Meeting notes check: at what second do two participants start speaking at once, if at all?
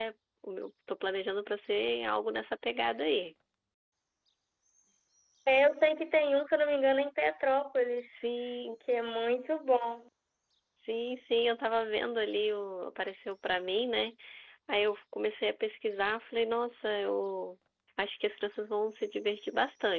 none

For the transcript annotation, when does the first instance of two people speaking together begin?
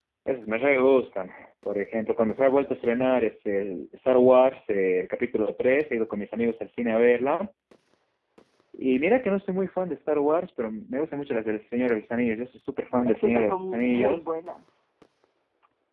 13.1 s

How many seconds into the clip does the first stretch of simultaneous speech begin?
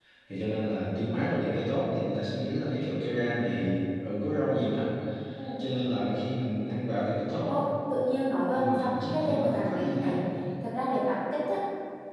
8.5 s

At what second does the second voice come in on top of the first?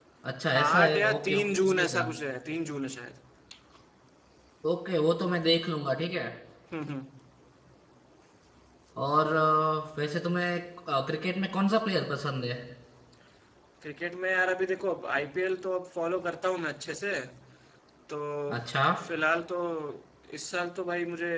0.6 s

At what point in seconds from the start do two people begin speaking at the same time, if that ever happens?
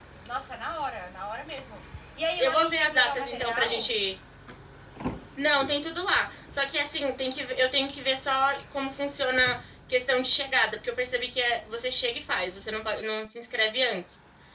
2.4 s

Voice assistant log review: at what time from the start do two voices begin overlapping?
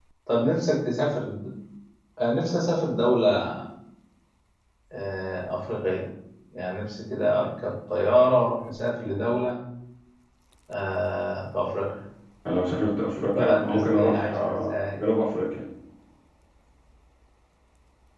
13.2 s

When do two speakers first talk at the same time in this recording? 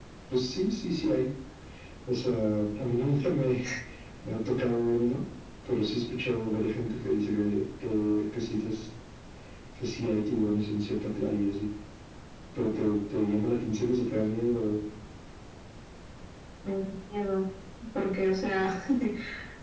none

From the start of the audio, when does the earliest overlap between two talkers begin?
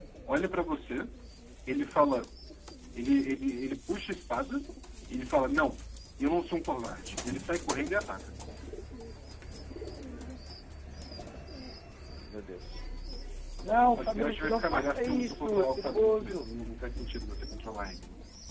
14.0 s

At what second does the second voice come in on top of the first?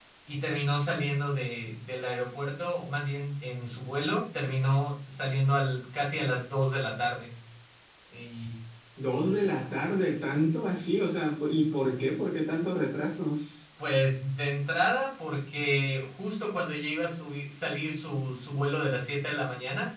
none

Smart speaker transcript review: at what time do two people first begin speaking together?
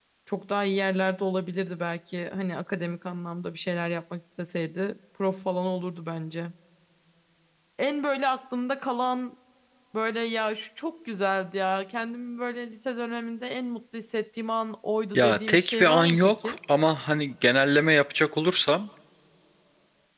15.2 s

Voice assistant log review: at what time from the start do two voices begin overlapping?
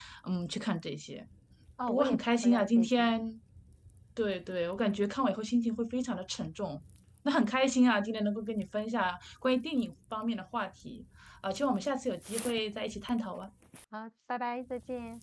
1.9 s

